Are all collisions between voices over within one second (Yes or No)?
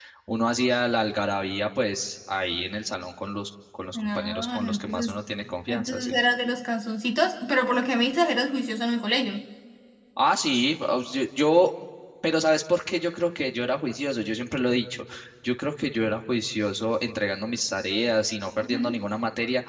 No